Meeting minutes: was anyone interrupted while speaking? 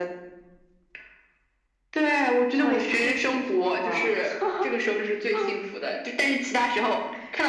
Yes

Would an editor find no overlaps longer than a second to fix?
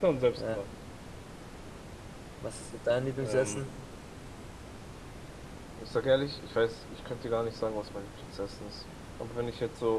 Yes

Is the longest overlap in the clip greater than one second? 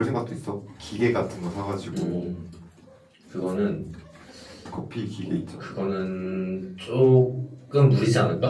No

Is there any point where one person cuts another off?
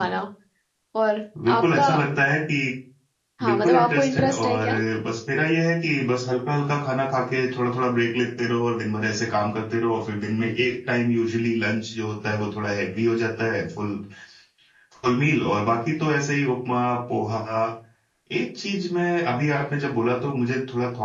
Yes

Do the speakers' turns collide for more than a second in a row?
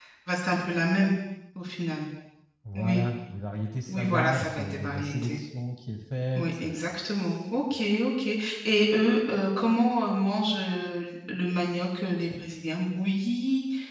Yes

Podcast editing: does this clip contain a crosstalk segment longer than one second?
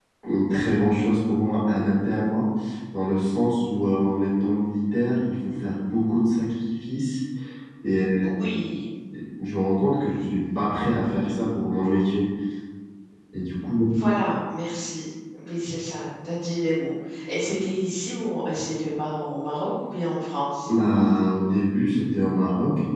No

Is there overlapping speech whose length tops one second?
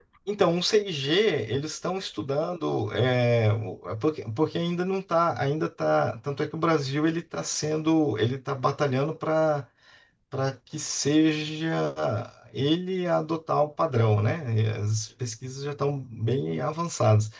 No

